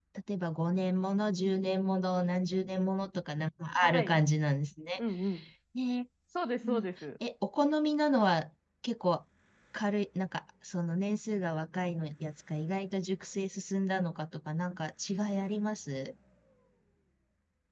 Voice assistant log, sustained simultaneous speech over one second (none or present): none